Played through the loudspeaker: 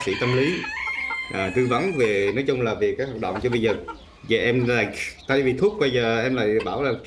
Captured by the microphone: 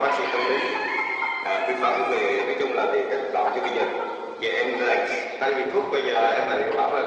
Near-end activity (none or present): none